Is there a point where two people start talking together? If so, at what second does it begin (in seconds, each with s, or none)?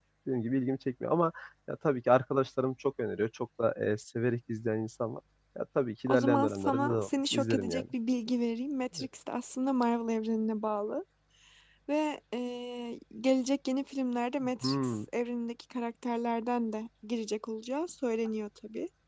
6.1 s